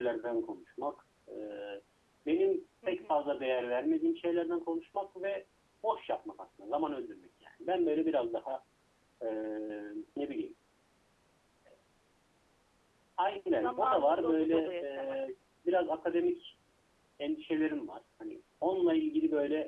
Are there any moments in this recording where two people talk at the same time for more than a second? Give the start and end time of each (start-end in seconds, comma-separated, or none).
13.6-15.2